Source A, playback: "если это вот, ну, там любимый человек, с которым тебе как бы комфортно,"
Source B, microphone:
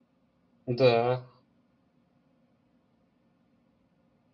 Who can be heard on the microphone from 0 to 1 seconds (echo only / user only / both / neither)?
user only